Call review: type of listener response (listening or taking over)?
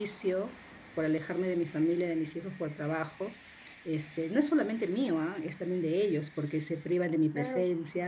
listening